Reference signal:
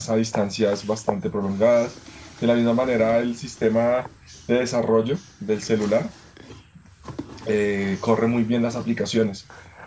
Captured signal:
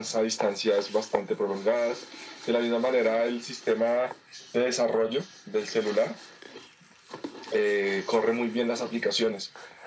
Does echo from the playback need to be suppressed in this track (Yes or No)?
Yes